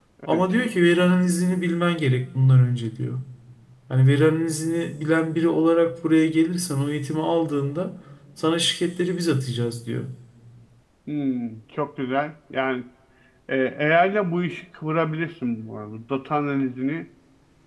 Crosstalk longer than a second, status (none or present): none